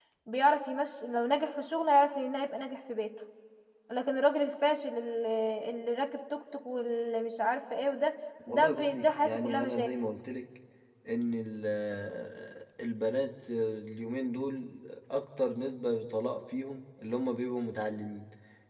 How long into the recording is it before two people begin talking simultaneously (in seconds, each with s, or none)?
8.5 s